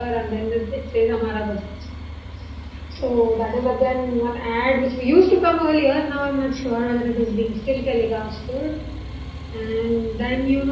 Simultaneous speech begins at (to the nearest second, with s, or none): none